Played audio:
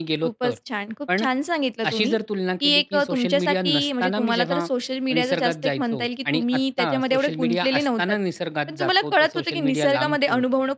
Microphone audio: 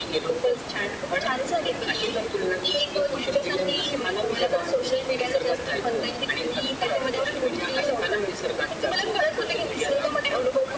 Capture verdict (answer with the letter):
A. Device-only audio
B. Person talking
A